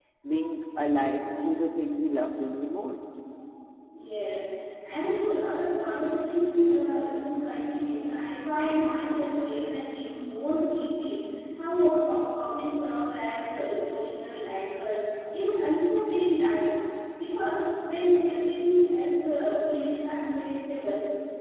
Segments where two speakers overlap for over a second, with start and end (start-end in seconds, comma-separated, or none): none